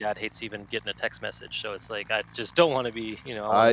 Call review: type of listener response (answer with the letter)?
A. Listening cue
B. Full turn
B